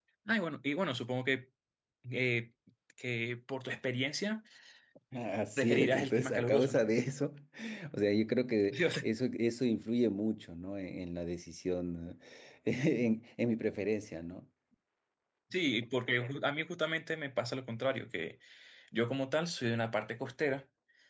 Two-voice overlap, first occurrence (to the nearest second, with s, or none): 6 s